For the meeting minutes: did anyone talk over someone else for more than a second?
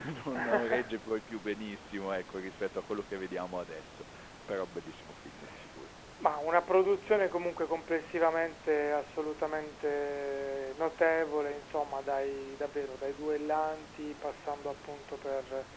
No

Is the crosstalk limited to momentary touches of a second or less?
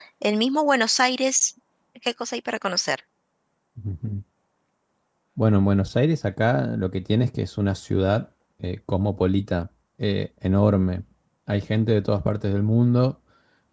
Yes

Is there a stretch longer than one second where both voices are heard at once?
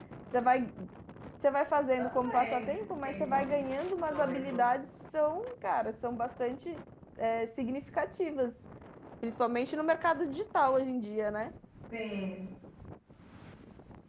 Yes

